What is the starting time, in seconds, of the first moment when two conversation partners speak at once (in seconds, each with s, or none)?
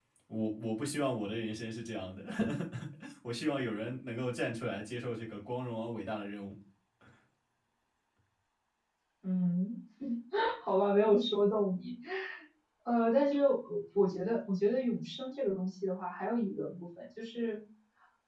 none